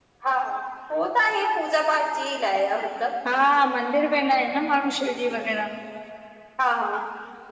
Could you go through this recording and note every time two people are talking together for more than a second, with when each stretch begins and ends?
none

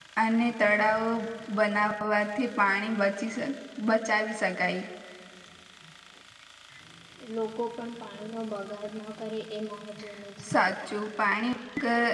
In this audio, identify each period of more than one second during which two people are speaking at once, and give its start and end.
none

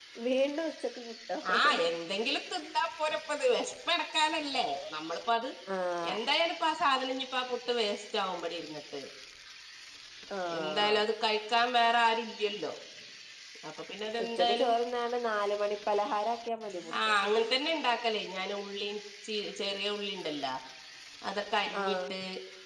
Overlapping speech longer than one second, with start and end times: none

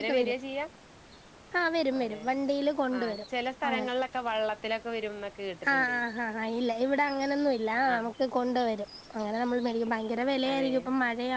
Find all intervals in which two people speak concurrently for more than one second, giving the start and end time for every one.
none

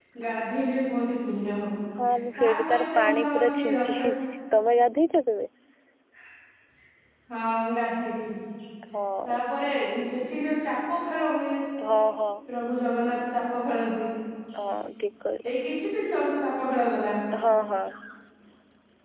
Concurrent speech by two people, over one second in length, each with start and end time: 2.4-3.9

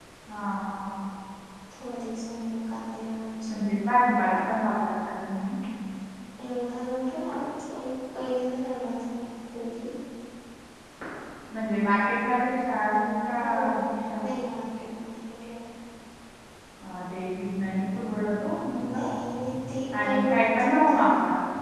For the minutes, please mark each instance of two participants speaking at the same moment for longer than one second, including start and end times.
18.8-21.0

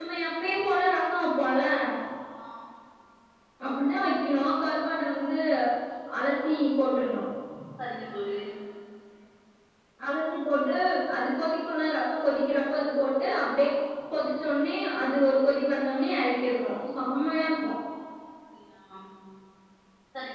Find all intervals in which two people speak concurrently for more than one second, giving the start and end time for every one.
none

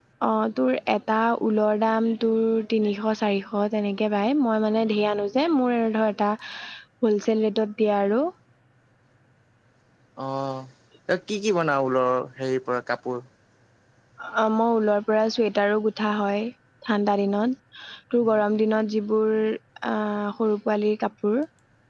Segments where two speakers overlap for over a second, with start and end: none

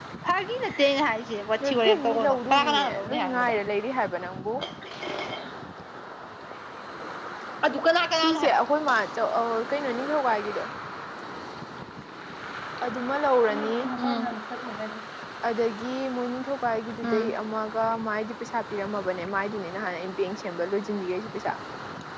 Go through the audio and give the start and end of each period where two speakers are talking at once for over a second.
1.6-3.5

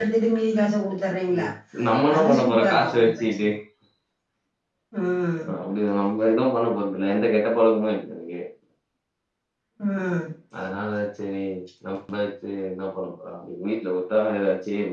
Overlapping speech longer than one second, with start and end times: 2.2-3.4

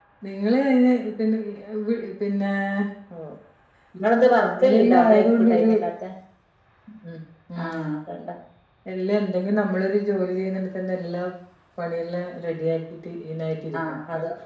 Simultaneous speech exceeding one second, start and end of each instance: 4.5-5.7

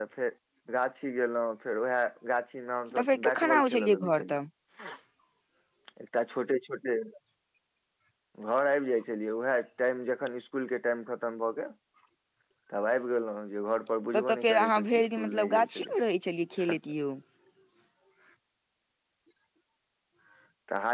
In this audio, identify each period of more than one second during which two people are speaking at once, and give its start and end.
3.0-4.3, 14.1-15.9

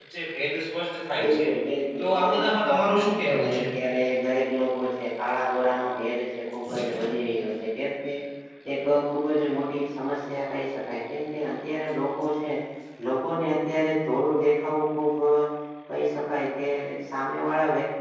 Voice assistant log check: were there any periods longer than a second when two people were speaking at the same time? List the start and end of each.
2.0-3.6

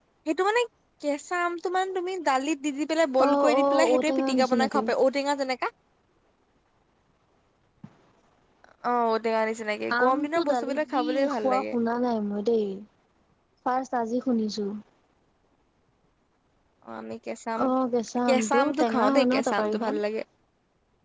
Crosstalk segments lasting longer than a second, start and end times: 3.3-4.8, 10.0-11.6, 18.3-20.0

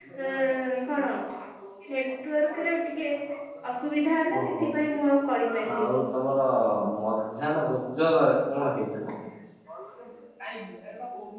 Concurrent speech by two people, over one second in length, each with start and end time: none

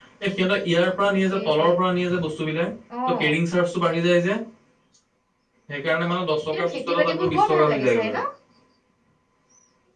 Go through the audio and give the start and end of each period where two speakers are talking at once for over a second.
6.5-8.2

